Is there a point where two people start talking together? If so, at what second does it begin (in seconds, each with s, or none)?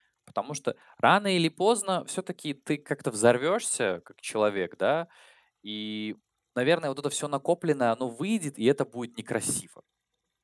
none